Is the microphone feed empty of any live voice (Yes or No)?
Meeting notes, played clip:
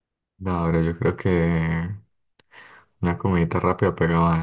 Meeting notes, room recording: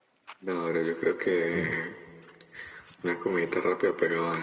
No